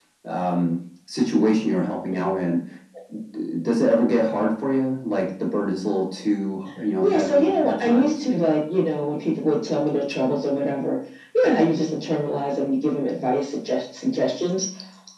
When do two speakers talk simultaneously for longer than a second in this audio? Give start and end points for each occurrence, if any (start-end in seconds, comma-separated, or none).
7.0-8.2